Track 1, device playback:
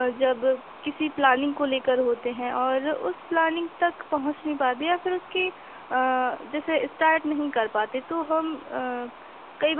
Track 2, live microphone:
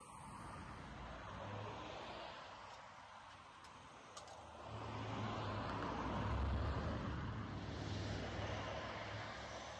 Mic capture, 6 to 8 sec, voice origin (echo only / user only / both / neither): neither